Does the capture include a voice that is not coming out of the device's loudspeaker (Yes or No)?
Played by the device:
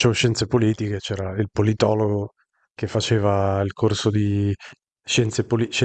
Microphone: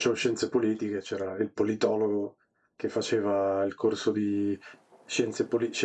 No